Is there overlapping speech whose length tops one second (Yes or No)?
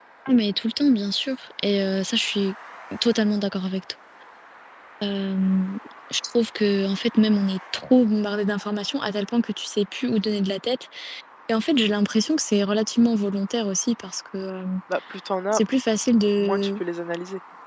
No